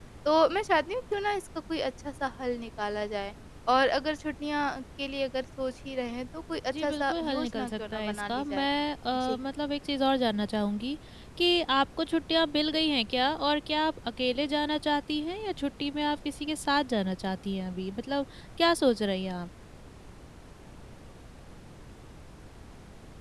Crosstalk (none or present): present